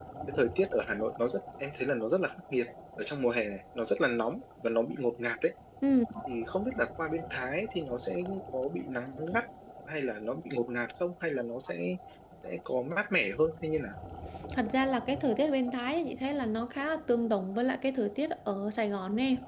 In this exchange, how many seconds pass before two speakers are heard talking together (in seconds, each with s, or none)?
none